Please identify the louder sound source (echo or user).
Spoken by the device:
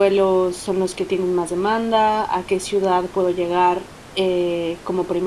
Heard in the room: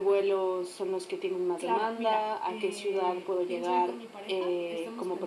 echo